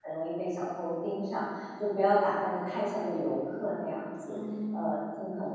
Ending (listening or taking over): listening